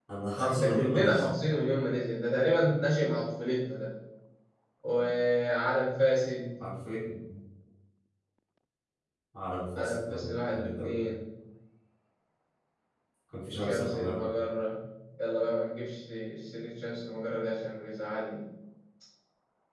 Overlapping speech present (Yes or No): Yes